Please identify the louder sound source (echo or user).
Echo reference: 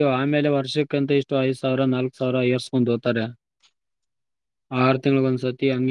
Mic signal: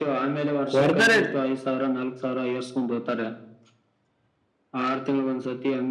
user